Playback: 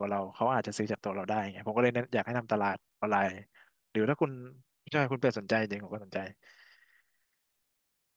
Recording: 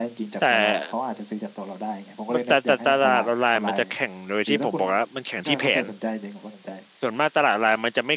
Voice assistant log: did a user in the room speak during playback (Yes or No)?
Yes